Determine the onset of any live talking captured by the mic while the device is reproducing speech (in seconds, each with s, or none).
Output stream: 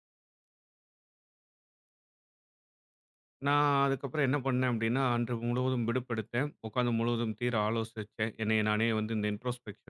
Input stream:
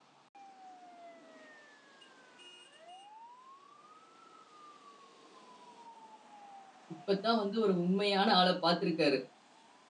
6.9 s